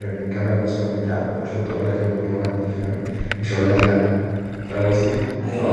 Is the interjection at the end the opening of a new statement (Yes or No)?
No